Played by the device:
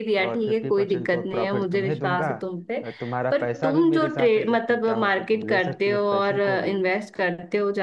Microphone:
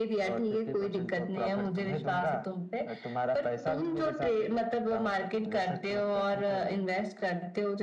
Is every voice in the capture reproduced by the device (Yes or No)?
Yes